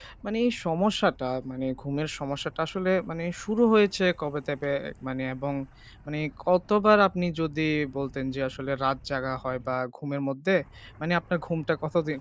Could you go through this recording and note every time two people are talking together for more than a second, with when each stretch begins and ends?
none

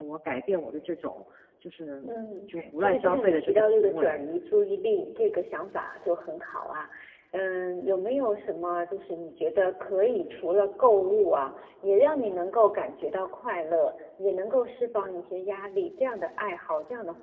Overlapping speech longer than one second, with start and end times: 2.5-4.3

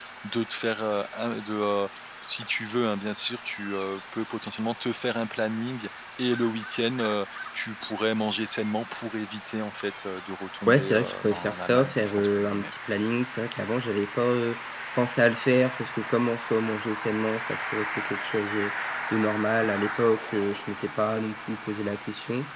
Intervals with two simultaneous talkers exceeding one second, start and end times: 10.7-12.7

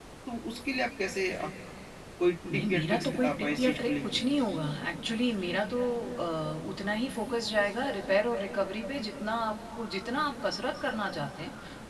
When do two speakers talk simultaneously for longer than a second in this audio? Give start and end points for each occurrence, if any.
2.5-4.0

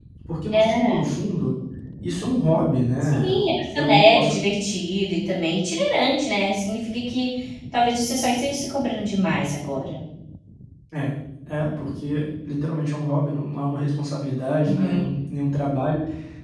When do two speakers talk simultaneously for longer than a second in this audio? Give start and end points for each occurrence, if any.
3.0-4.4

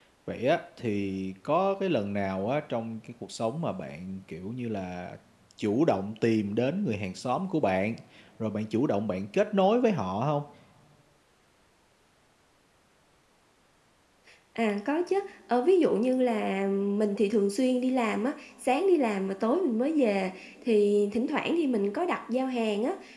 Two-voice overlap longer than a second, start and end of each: none

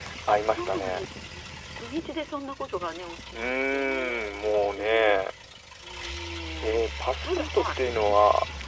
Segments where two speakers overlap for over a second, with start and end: 3.3-5.2

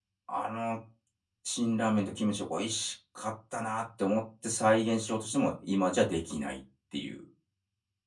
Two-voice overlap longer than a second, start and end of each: none

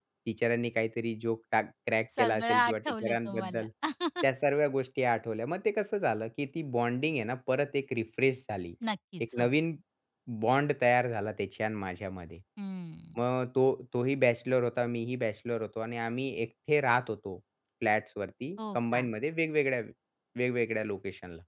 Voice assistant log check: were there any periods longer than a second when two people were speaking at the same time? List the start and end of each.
2.2-3.6

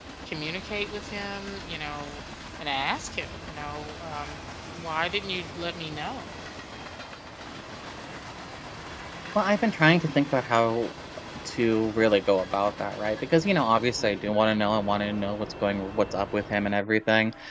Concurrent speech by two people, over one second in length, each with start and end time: none

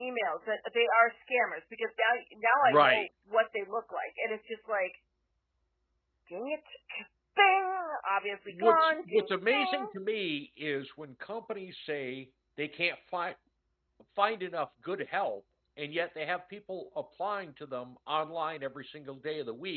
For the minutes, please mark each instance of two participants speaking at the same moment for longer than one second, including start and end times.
8.5-9.9

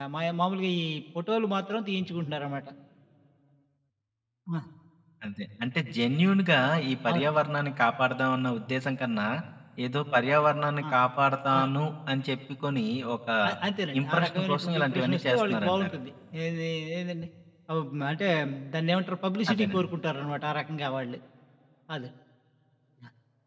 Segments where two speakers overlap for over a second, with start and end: 14.0-15.9

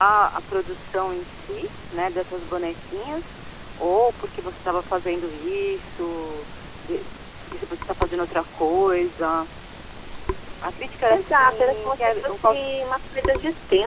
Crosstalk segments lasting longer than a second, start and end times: 11.1-12.7

